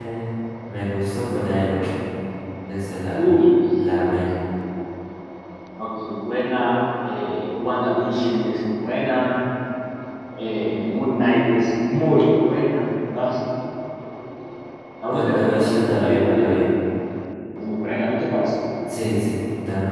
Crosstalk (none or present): present